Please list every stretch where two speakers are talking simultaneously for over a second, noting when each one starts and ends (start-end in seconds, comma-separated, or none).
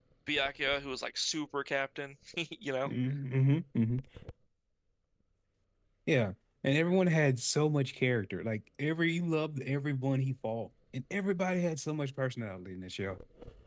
none